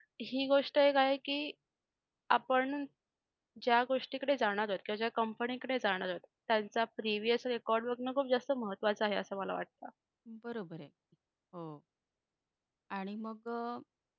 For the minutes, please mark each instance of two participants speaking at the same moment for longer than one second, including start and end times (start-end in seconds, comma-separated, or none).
none